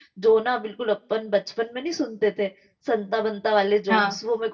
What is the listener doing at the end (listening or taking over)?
listening